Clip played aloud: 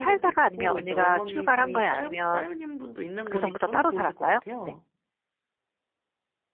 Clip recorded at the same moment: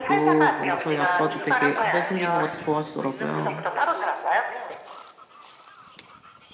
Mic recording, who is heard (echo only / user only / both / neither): both